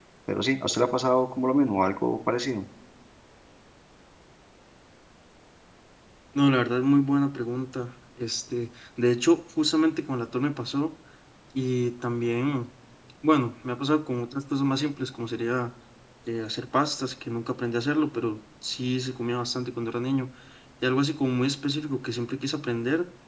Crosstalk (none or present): none